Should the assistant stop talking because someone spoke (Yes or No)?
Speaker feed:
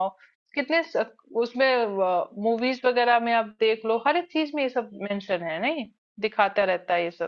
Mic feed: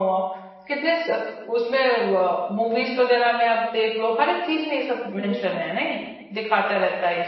Yes